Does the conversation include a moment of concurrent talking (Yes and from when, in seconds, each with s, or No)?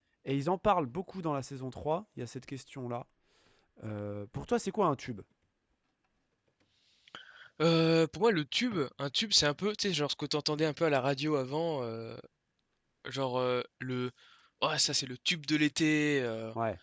No